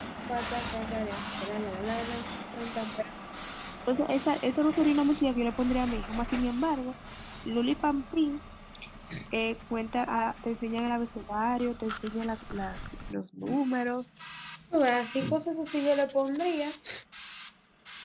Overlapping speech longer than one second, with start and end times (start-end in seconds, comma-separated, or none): none